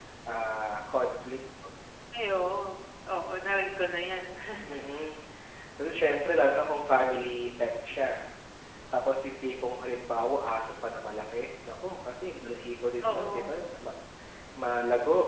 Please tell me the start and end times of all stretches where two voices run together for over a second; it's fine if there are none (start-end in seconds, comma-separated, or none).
none